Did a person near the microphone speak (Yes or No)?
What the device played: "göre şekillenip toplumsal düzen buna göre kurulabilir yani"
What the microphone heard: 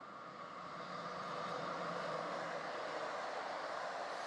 No